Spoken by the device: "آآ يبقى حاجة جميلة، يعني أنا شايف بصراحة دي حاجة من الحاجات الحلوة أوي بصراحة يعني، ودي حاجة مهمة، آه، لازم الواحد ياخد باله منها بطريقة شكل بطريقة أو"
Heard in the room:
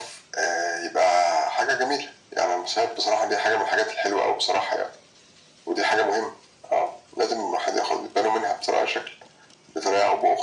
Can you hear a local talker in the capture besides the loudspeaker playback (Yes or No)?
No